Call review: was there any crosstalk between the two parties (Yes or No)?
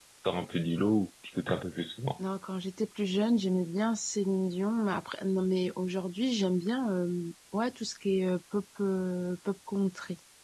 No